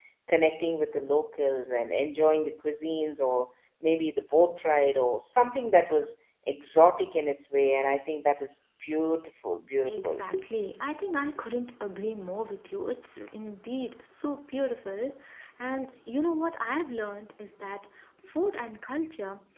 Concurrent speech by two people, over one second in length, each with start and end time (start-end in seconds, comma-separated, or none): none